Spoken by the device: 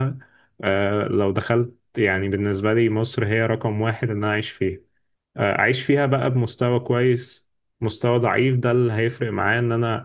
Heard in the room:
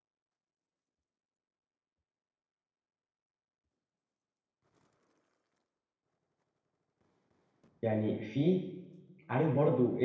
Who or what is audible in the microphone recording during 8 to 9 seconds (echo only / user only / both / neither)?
user only